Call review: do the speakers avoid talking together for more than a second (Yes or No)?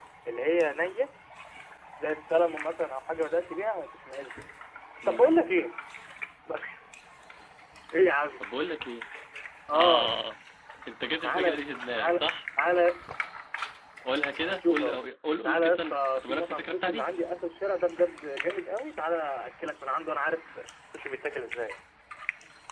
No